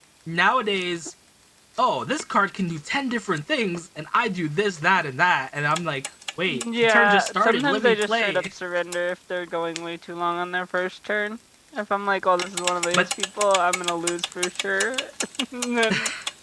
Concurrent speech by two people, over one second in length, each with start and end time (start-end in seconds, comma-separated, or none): 6.5-8.5